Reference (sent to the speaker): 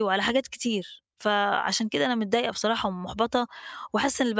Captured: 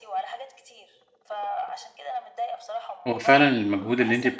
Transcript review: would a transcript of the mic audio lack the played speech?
No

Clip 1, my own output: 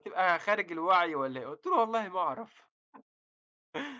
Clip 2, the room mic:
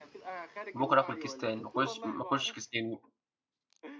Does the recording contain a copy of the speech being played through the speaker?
Yes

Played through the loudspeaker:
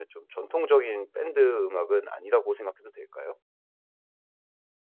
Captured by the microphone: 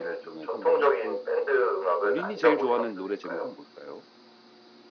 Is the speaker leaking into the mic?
Yes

